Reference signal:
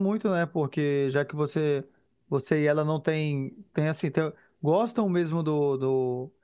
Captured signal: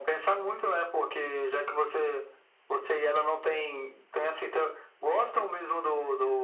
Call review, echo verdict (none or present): present